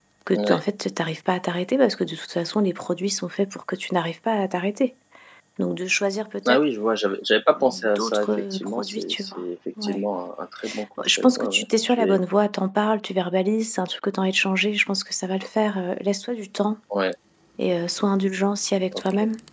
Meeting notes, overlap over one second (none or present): present